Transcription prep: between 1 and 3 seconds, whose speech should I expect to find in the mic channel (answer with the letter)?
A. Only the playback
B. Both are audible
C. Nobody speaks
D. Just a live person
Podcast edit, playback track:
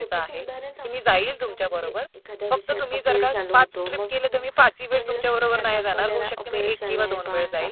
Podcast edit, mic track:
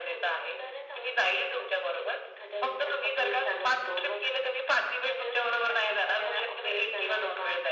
A